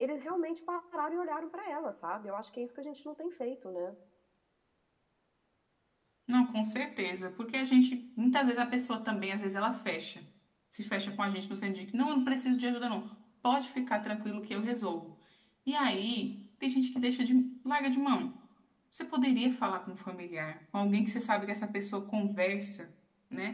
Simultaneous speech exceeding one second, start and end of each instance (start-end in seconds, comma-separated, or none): none